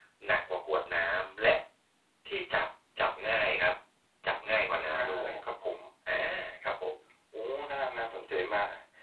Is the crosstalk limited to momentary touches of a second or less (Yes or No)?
Yes